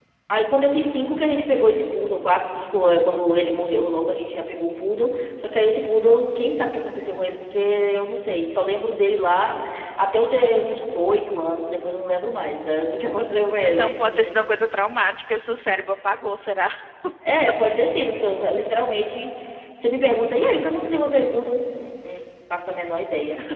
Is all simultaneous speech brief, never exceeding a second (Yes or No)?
Yes